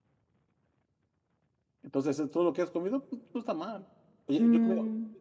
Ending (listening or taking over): listening